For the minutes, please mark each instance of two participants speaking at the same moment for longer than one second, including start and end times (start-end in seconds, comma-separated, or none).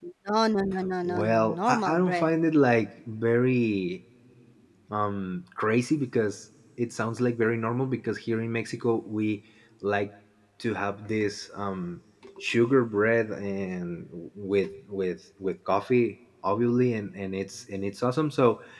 1.0-2.3